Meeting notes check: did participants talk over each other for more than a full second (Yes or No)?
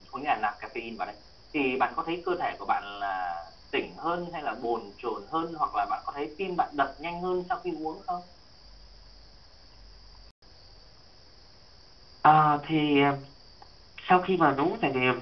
No